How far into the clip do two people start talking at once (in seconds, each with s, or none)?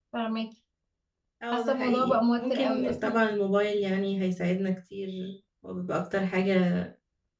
1.5 s